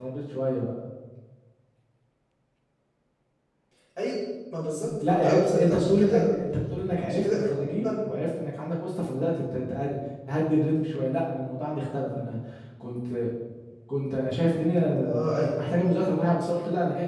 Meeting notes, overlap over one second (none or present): present